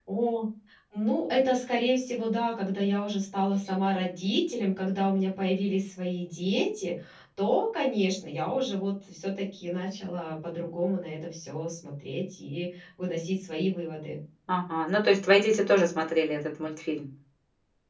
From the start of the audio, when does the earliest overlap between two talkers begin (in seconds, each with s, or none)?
none